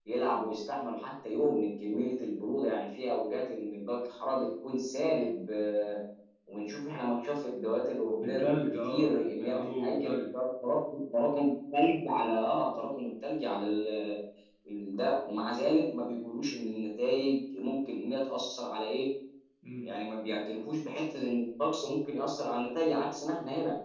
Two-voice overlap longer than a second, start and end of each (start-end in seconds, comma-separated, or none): 8.2-10.2